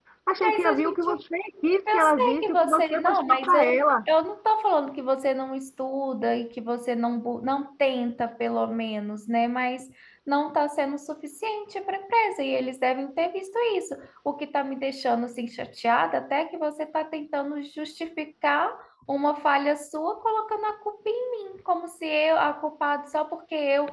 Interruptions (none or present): present